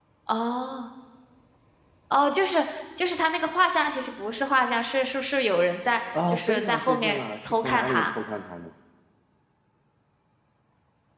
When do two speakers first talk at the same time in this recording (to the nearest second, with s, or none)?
6 s